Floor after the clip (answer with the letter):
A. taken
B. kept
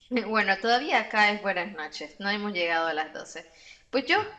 B